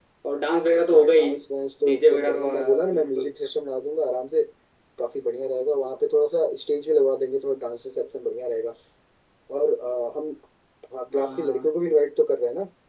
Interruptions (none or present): present